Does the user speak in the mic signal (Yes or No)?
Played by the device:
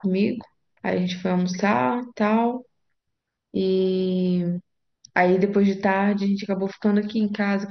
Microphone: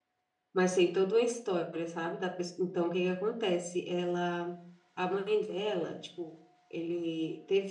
Yes